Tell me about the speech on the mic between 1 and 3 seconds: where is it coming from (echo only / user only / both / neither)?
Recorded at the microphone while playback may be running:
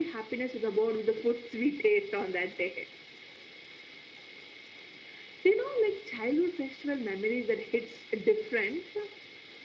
echo only